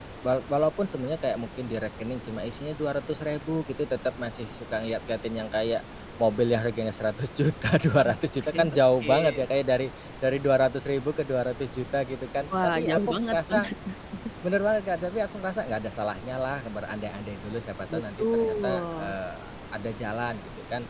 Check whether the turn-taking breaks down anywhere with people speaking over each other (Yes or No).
Yes